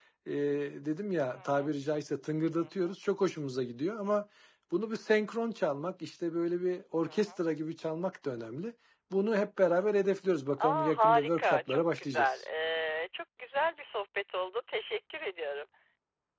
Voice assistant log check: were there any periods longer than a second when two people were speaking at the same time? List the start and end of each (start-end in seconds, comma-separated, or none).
10.6-12.3